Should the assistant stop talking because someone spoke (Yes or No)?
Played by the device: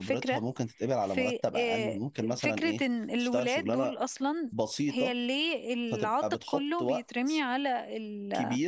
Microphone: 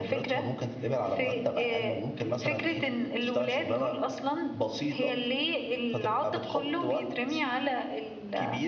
No